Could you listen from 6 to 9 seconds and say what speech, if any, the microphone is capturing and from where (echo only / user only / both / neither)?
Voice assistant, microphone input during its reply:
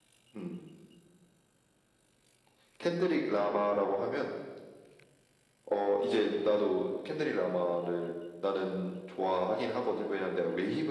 echo only